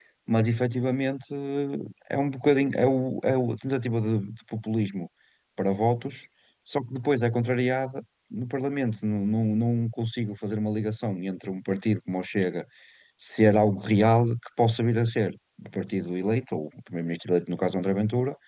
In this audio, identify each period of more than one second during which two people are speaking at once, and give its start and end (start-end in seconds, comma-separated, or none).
none